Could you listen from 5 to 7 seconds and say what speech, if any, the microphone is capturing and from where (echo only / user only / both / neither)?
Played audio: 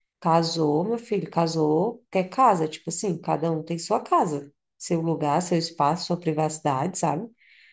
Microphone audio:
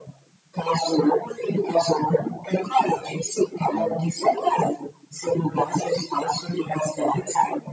echo only